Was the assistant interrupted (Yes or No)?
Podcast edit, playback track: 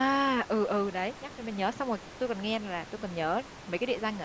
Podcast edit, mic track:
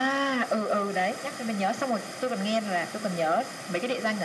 No